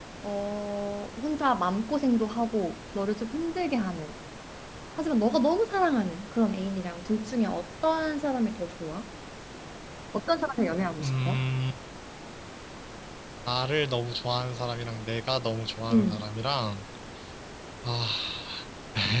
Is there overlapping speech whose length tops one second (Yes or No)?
No